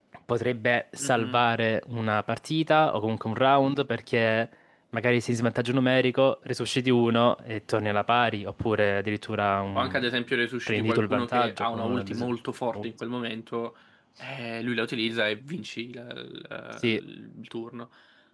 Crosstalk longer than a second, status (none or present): present